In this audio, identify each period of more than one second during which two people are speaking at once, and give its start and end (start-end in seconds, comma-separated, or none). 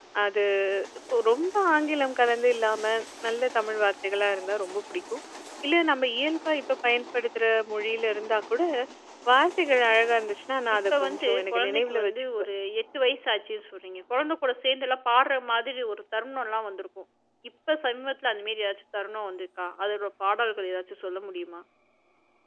10.8-12.4